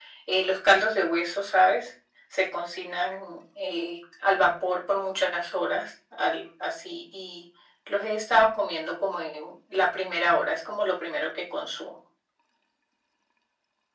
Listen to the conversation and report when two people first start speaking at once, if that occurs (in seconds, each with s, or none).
none